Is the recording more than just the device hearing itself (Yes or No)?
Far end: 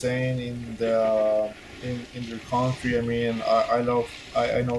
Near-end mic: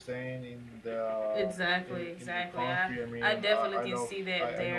Yes